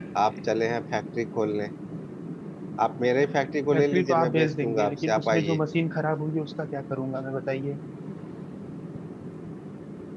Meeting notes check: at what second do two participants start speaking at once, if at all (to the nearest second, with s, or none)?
4 s